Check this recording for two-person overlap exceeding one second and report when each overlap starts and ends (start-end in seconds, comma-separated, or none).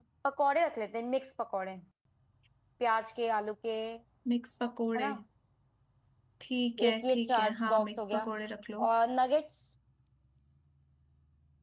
6.9-8.3